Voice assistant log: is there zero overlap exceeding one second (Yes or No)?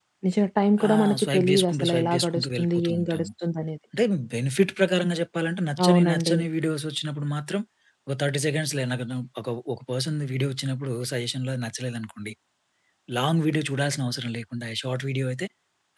No